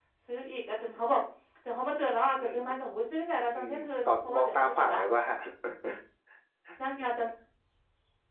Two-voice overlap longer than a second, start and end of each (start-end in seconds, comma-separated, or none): 3.5-5.0